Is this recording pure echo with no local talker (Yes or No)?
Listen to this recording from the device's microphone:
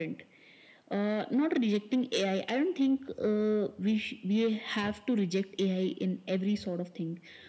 Yes